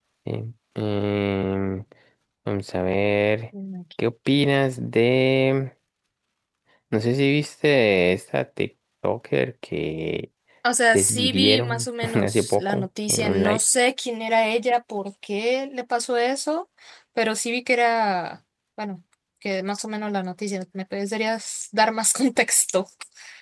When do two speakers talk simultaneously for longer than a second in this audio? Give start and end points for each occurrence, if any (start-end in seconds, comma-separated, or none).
10.9-13.6